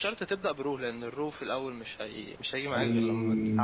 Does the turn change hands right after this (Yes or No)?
Yes